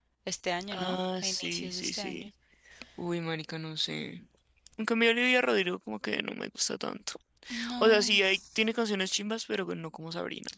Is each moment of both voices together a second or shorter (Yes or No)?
No